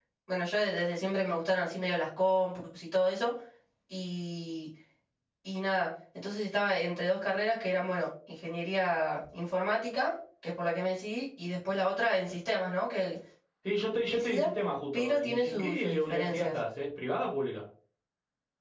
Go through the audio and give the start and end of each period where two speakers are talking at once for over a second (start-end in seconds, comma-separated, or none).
14.9-16.5